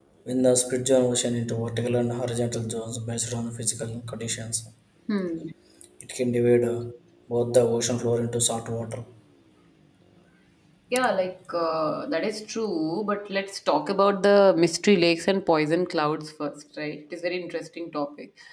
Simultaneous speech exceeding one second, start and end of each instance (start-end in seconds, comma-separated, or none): none